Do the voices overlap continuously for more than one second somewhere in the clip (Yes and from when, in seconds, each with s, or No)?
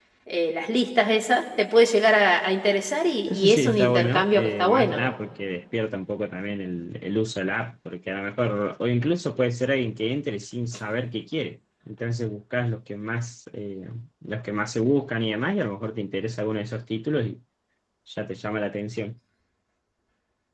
Yes, from 3.3 s